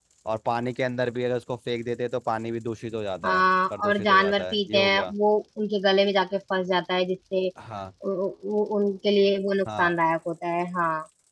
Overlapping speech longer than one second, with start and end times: 3.2-5.1

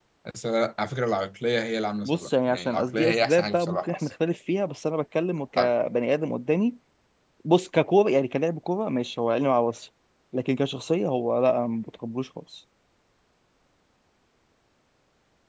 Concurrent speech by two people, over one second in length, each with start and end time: 2.0-4.1

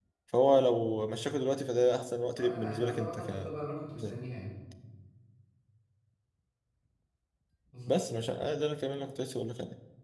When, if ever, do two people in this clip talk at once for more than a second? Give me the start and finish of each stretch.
2.2-3.5

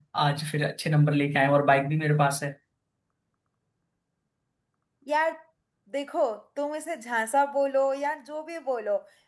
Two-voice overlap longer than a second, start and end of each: none

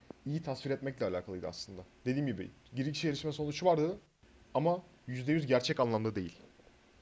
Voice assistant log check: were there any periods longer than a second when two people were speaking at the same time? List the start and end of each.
none

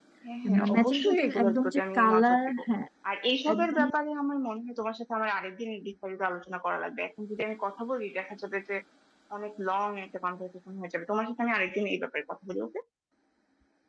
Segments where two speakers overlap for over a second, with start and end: 0.8-2.6

